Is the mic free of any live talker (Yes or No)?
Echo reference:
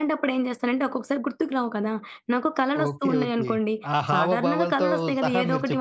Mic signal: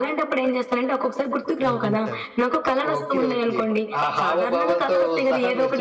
No